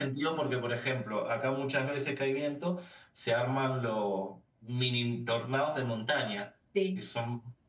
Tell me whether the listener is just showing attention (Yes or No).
Yes